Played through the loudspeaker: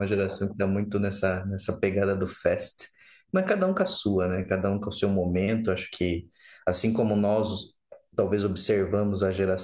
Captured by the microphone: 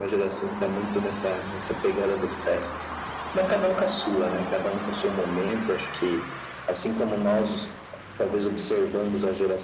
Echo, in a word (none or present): present